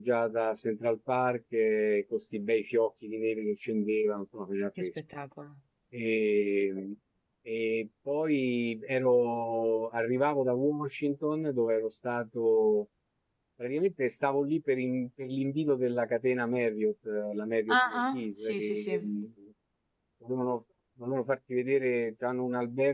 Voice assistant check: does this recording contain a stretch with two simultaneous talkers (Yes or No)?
Yes